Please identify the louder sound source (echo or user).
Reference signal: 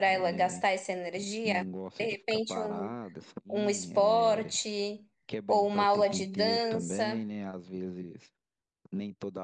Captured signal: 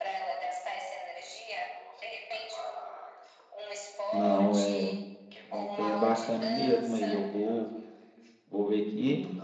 user